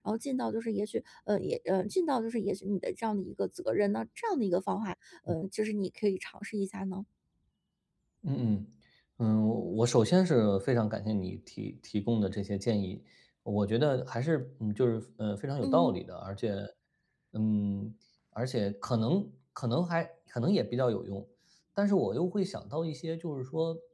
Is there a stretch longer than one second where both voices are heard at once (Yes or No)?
No